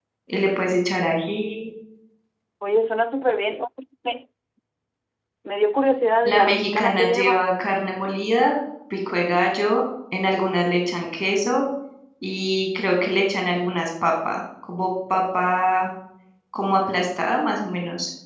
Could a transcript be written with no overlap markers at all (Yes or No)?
No